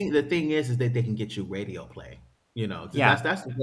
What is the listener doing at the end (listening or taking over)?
listening